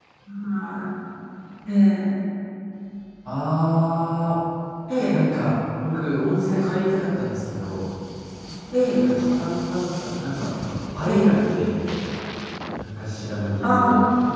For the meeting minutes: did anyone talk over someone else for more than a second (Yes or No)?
No